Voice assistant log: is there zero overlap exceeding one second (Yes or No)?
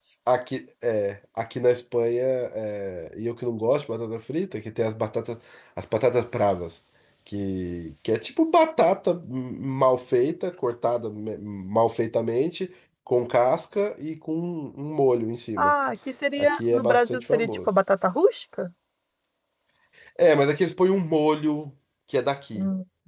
No